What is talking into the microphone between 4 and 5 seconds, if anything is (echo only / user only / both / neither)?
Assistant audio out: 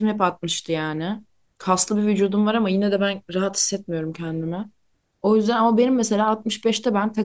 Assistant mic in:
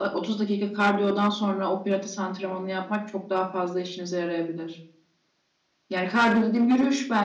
user only